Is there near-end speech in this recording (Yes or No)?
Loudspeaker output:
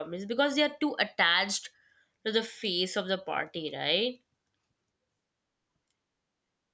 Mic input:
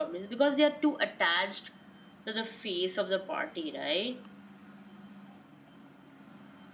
No